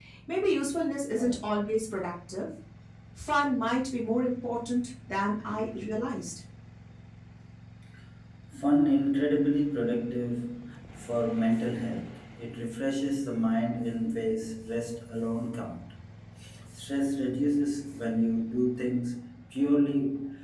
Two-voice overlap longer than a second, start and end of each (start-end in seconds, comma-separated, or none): none